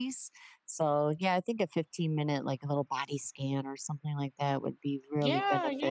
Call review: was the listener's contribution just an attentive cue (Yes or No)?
No